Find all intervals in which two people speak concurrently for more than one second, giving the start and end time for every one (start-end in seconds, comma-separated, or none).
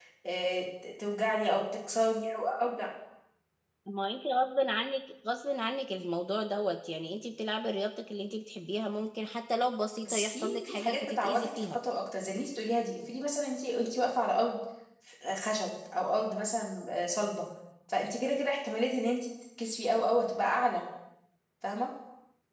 10.0-11.8